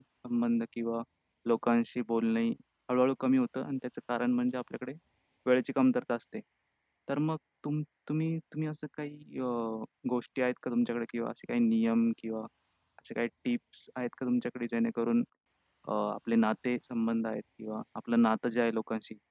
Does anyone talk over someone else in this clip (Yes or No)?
No